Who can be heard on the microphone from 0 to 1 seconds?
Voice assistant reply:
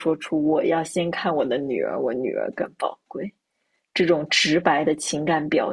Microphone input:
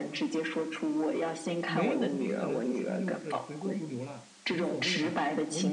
echo only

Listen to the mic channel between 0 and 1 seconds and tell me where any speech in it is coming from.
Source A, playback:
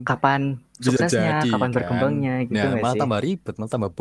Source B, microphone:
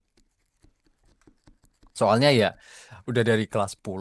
neither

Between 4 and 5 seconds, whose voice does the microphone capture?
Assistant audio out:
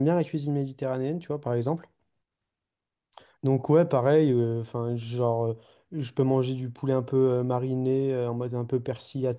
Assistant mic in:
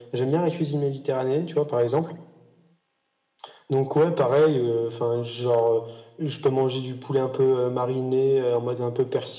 echo only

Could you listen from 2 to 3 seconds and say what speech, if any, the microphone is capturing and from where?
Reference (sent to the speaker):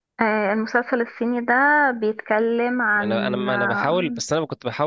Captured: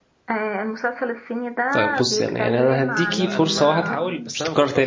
both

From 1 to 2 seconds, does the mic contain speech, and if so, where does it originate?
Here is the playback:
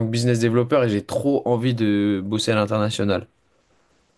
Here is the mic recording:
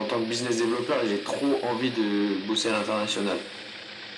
echo only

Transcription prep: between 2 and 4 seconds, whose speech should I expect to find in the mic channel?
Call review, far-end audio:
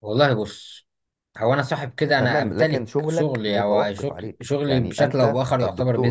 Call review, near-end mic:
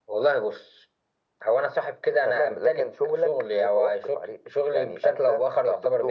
echo only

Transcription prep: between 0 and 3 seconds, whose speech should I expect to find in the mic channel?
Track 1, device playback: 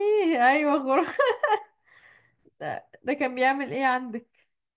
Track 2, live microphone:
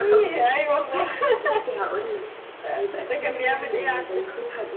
both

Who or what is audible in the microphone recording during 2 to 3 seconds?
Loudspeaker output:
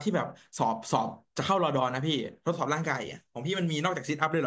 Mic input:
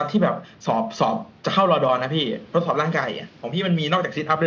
echo only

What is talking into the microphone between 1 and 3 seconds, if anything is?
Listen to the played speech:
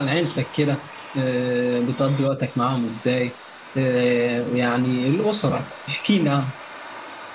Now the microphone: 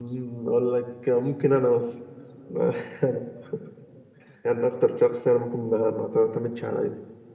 user only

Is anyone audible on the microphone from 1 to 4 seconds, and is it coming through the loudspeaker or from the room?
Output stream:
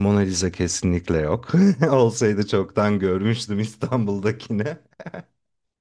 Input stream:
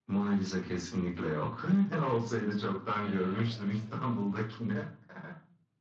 both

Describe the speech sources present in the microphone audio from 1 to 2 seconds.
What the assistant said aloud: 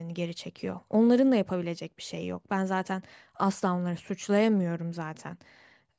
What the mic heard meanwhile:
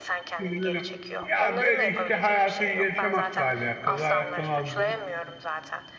both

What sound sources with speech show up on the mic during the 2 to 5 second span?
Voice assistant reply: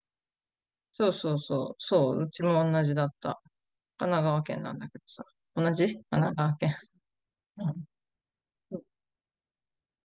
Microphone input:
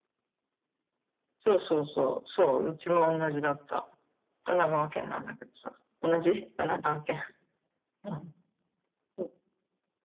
echo only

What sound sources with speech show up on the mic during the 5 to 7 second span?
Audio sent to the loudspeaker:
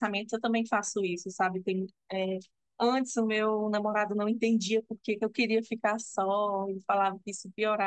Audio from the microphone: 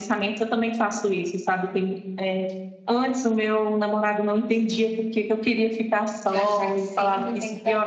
both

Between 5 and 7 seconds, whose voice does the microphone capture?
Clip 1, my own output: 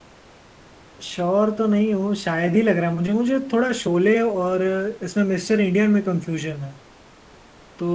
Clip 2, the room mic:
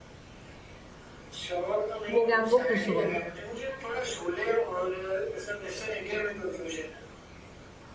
echo only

